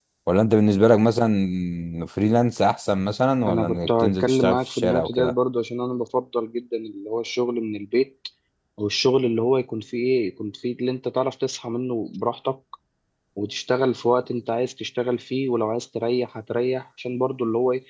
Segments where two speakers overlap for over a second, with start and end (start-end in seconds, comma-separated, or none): 3.5-5.3